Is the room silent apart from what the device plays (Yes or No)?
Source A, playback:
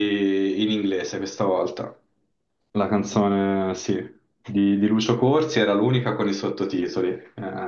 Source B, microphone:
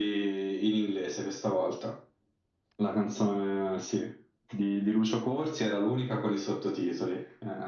Yes